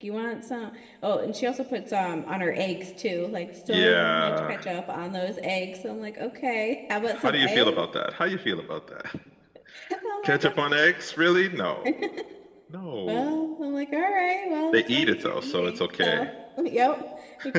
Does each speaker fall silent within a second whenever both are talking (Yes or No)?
No